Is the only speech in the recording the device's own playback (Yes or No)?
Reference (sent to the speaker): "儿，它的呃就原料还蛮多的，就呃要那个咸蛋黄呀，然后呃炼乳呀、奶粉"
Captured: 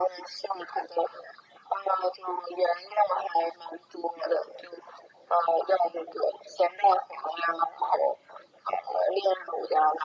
Yes